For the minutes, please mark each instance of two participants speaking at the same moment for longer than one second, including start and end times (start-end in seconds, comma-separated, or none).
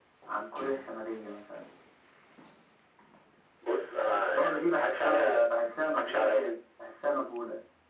4.1-5.5